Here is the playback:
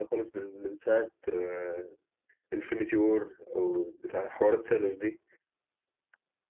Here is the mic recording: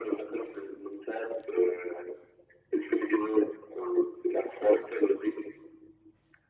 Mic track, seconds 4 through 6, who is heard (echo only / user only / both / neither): echo only